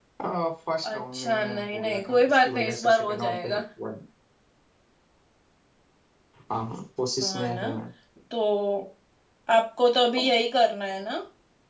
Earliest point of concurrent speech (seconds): 0.8 s

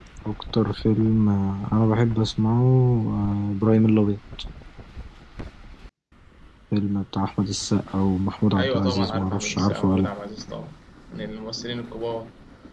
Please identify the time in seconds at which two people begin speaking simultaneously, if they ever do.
8.6 s

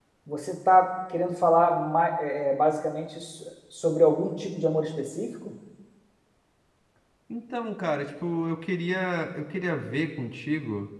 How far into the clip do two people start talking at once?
none

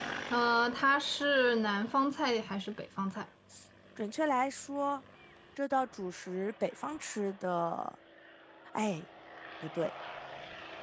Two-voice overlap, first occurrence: none

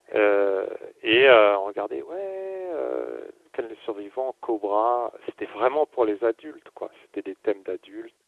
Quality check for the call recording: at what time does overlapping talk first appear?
none

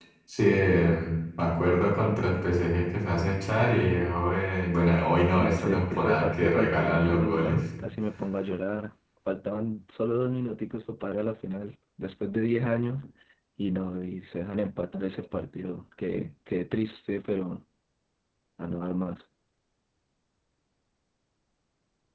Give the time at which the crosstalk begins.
5.4 s

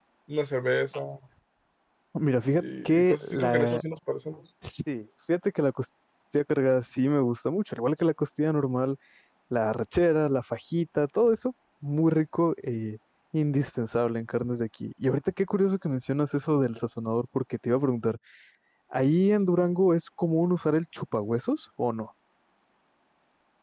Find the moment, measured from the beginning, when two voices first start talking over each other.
2.6 s

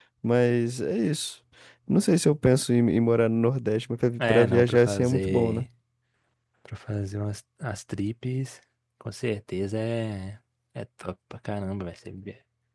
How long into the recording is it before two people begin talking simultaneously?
4.2 s

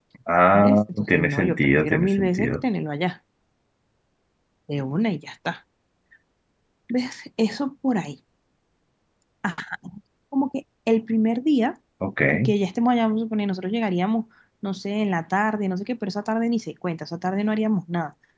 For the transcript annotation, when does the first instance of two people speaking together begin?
0.5 s

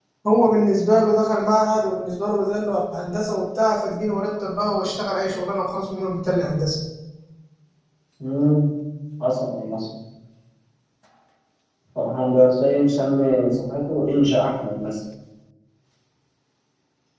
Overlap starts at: none

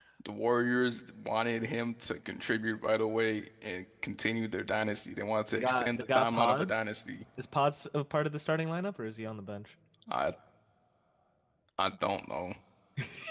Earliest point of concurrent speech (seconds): 5.5 s

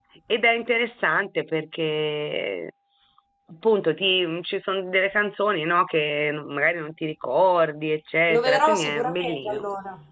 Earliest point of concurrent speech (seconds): 8.3 s

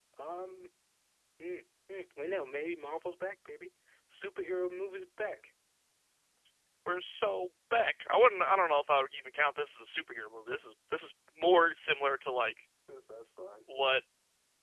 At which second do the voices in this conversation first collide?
none

